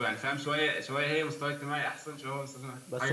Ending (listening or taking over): taking over